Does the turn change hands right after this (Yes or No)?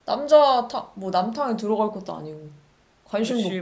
Yes